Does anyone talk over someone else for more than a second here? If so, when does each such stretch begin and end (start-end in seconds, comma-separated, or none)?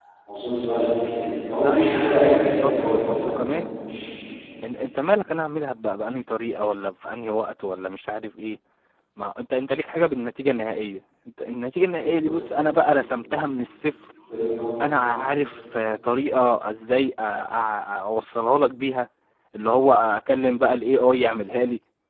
1.5-3.4